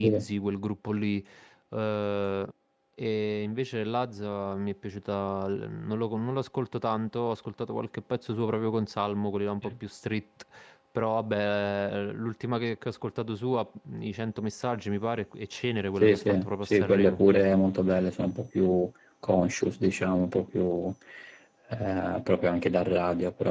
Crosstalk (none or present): present